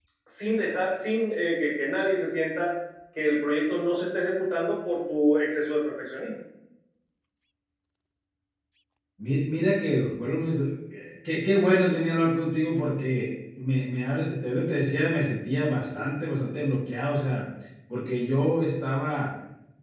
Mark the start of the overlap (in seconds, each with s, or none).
none